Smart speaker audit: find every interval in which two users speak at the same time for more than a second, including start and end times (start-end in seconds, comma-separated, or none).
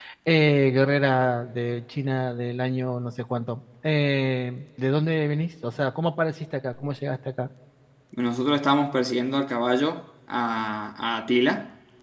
none